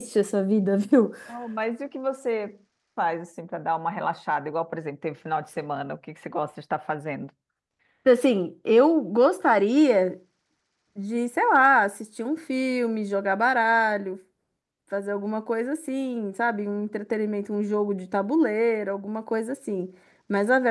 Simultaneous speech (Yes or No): No